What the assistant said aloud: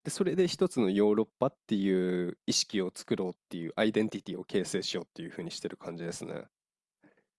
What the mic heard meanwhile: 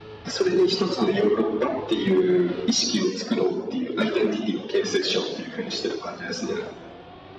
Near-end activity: none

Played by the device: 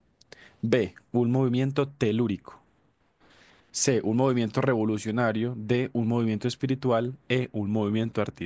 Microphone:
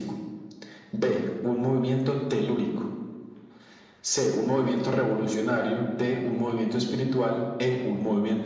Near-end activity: none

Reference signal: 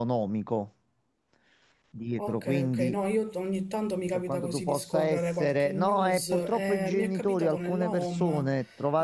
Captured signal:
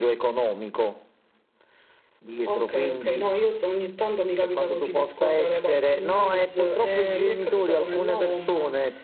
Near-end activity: none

